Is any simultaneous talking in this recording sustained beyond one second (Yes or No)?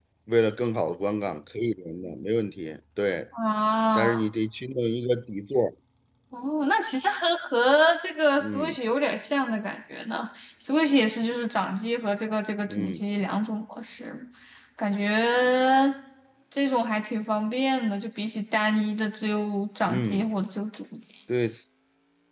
No